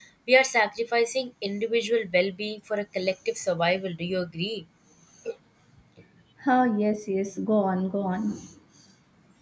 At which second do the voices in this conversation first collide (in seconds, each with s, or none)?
none